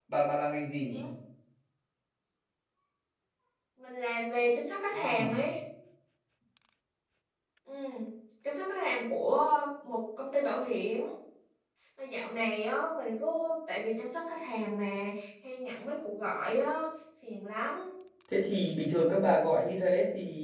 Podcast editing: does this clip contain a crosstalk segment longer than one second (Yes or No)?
No